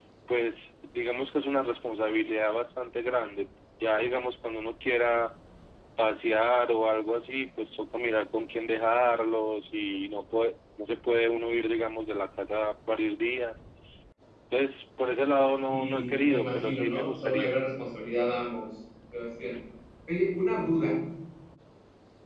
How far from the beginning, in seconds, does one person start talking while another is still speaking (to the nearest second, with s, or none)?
16 s